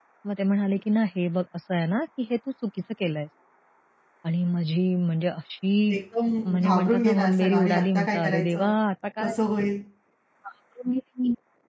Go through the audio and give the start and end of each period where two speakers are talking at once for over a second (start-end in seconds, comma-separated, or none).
6.5-8.7